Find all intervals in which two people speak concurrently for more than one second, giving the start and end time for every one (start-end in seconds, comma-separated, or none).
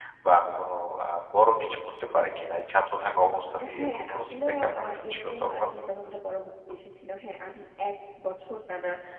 3.8-5.6